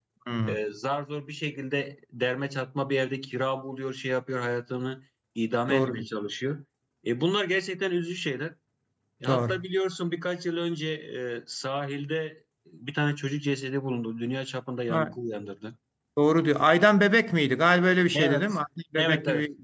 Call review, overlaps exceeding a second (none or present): none